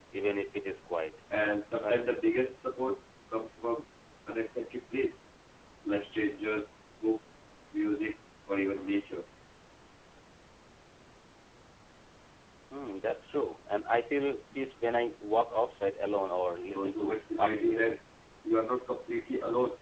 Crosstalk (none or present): present